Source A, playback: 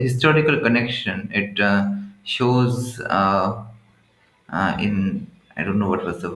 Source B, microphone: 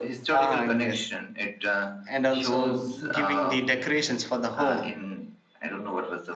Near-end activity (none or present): present